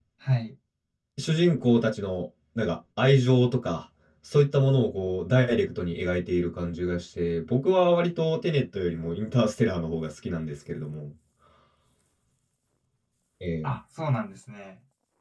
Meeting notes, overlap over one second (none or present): none